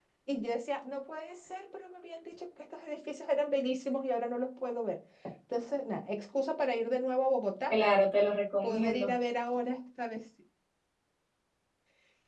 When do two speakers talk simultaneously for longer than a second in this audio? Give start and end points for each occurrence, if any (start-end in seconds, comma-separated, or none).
none